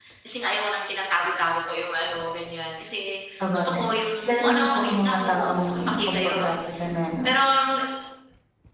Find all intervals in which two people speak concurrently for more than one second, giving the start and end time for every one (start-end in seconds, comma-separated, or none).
4.2-6.5